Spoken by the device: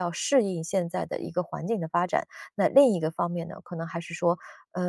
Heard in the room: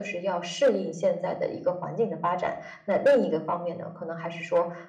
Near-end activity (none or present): none